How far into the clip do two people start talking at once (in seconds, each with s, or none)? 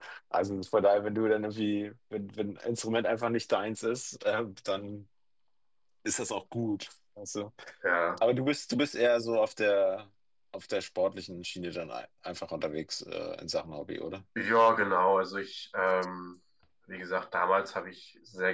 none